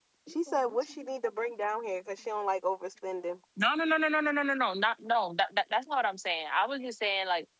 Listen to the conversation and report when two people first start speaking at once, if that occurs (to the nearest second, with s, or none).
none